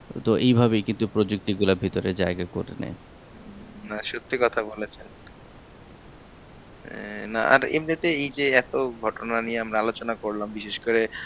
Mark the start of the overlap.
none

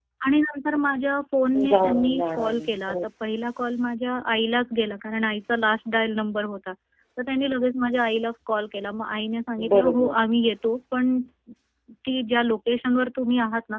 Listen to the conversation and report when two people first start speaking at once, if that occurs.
1.5 s

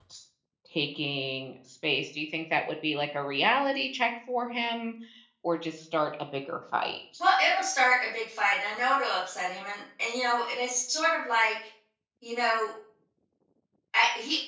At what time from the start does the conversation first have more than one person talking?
none

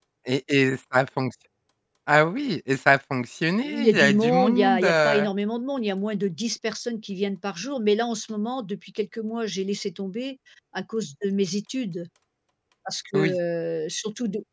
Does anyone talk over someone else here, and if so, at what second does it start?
3.6 s

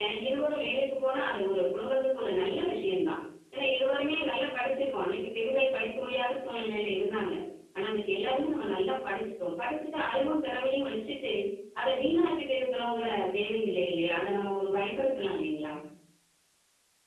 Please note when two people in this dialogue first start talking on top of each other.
none

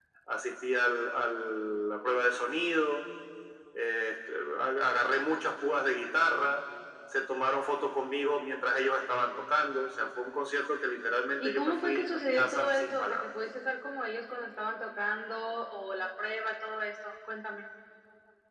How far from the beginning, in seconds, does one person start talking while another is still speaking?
11.4 s

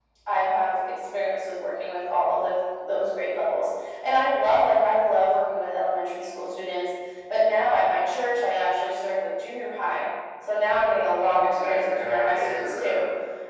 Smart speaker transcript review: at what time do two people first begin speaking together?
11.5 s

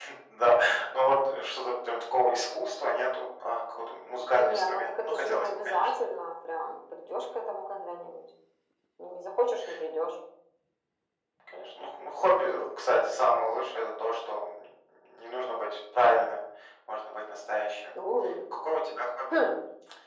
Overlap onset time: 4.3 s

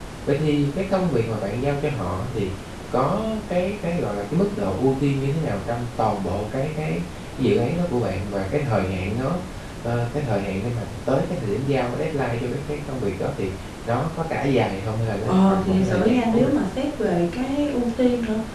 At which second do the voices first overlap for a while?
15.3 s

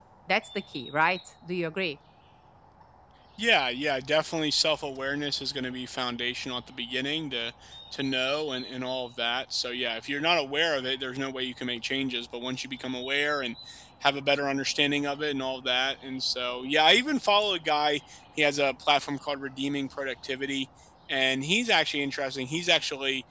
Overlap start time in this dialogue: none

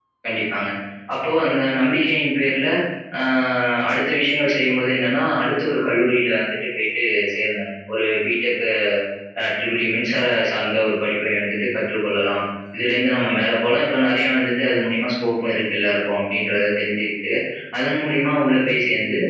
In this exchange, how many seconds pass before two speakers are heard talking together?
none

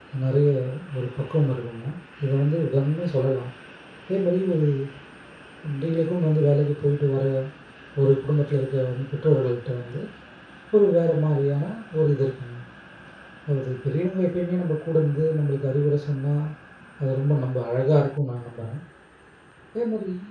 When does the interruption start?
none

